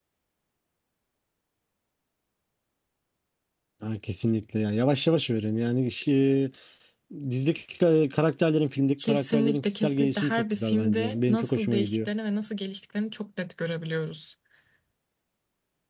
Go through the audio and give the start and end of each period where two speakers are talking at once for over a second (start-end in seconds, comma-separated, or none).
9.1-12.1